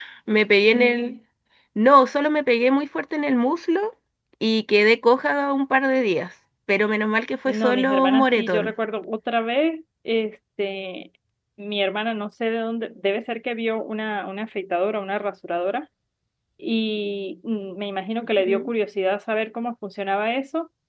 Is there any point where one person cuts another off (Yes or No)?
Yes